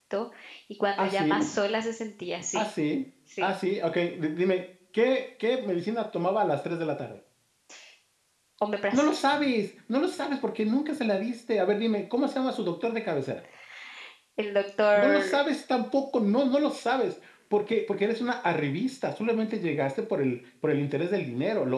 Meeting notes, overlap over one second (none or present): none